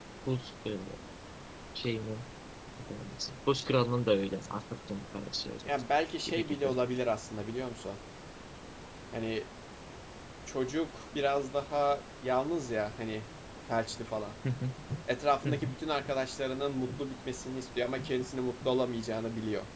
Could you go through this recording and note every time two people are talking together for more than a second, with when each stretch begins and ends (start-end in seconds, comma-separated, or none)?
none